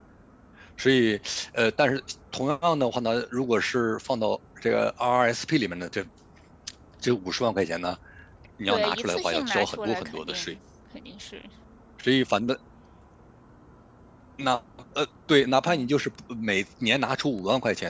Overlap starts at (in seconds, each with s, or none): 8.7 s